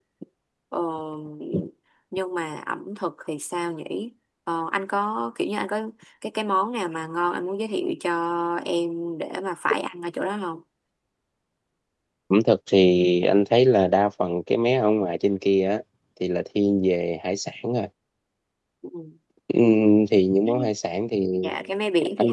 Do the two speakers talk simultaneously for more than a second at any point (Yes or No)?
No